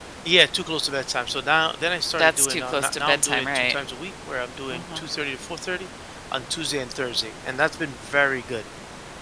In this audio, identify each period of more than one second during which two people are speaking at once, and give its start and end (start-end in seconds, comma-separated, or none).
2.2-3.8